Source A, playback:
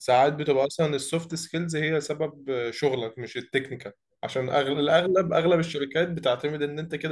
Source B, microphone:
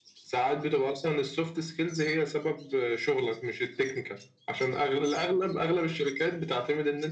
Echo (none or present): present